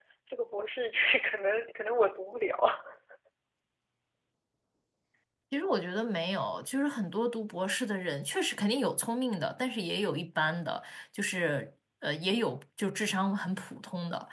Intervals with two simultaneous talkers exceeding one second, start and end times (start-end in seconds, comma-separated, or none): none